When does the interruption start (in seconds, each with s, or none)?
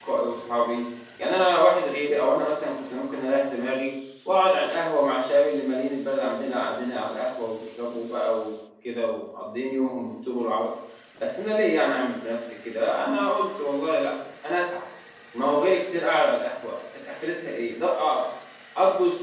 none